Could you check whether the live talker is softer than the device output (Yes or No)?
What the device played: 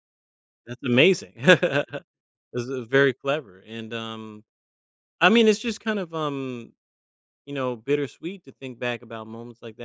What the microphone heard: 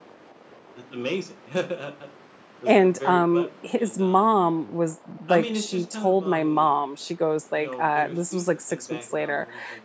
No